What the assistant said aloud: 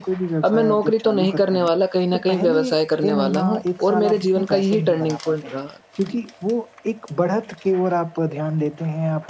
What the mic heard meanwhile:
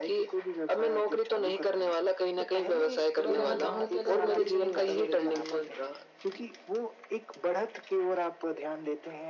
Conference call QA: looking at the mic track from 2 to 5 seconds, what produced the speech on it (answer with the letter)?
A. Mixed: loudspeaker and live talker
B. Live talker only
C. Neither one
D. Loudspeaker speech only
A